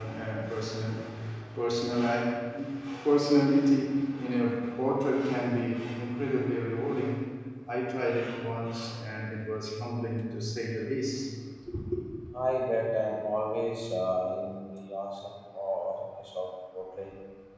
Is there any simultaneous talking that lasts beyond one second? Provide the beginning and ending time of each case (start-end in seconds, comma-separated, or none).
none